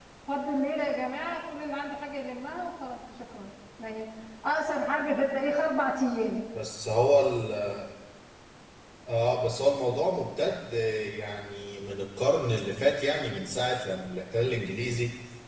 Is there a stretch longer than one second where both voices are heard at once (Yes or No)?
No